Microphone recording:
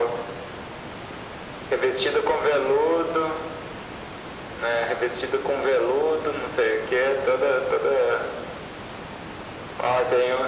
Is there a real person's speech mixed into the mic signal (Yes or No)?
No